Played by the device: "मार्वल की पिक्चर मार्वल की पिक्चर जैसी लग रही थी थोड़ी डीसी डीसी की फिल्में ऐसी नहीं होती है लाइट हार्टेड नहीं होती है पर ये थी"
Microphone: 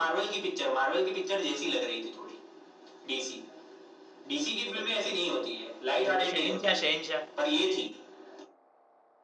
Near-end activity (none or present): present